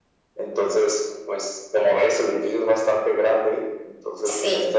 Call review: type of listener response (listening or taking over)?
listening